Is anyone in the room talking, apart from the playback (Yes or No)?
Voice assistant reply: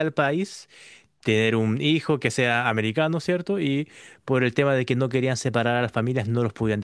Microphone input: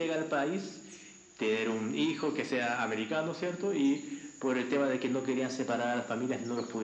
No